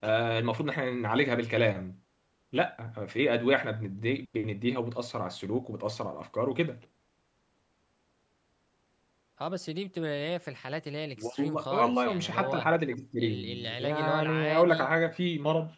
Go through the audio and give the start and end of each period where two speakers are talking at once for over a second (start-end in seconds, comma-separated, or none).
11.2-12.7, 13.2-14.9